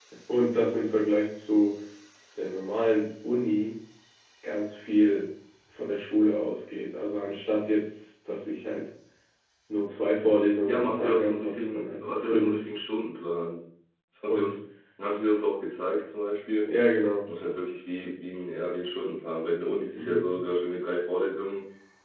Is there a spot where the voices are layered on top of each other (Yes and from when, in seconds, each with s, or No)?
Yes, from 10.7 s